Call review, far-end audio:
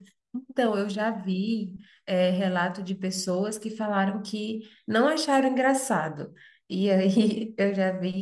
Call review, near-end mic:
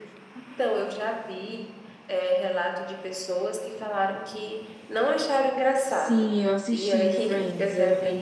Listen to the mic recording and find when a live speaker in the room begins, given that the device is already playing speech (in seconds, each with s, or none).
5.8 s